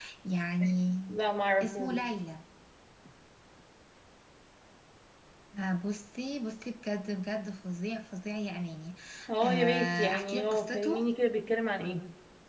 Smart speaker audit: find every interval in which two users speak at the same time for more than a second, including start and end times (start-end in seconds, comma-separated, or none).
9.4-11.1